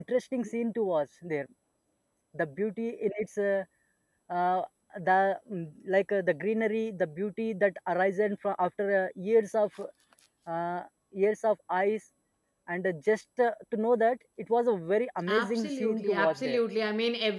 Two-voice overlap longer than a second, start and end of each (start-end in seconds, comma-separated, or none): 15.3-16.6